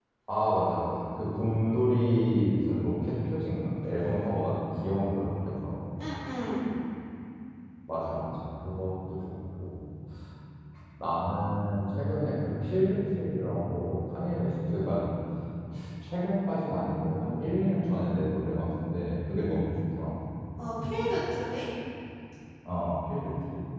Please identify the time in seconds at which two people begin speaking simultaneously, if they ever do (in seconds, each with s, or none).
none